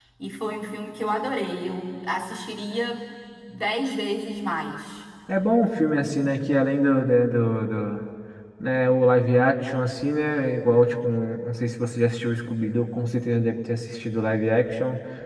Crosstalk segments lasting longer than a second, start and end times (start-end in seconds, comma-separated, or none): none